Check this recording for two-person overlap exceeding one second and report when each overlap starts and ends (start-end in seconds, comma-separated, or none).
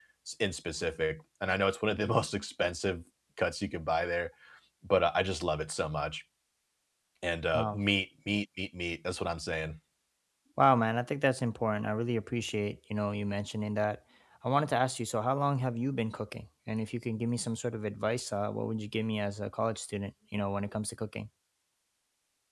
none